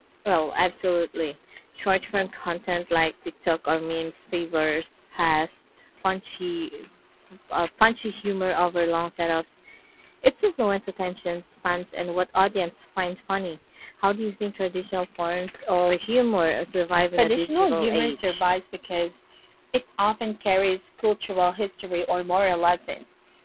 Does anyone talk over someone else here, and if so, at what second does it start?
17.2 s

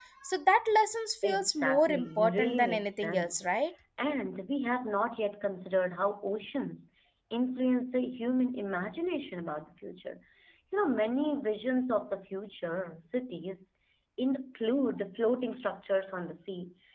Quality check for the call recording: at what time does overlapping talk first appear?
1.2 s

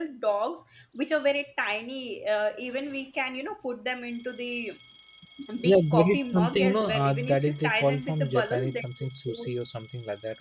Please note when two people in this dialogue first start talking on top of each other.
5.7 s

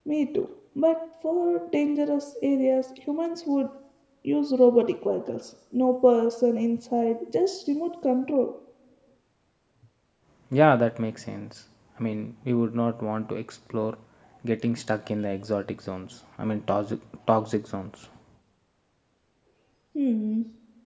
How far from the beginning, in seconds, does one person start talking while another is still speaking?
none

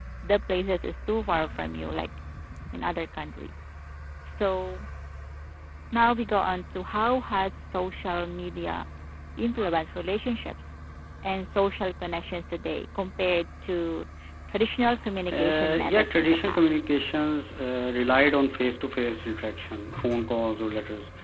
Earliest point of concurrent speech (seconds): 15.3 s

